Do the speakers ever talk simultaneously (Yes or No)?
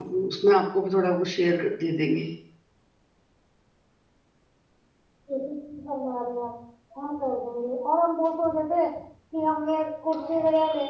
No